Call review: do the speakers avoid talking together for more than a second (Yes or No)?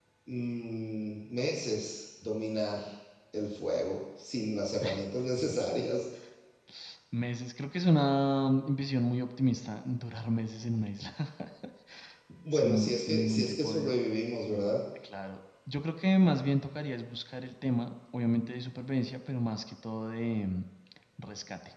No